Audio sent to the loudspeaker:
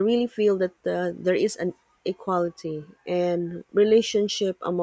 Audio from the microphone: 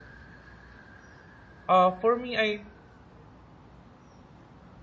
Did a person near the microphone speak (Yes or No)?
Yes